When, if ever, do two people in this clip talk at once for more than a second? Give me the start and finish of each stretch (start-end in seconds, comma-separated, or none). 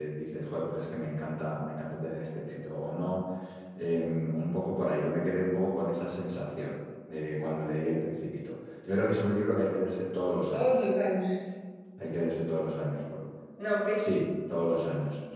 none